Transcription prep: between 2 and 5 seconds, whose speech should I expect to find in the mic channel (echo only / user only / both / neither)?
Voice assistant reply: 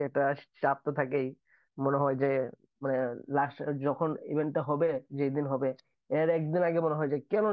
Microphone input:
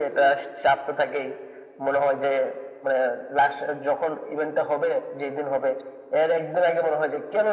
echo only